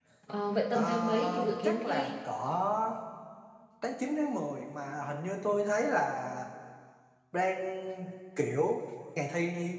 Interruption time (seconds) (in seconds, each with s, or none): 0.7 s